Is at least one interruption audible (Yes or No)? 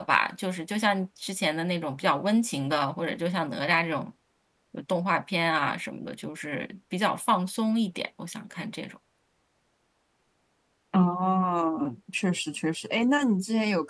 No